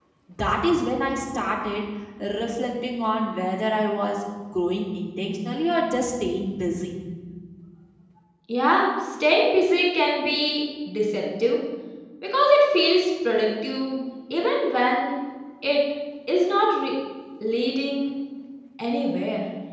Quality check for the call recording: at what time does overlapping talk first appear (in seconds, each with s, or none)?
none